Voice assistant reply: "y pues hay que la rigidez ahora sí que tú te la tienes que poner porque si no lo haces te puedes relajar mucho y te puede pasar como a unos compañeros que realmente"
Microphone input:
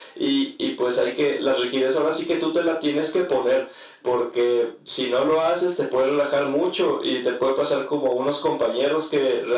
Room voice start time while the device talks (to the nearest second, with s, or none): none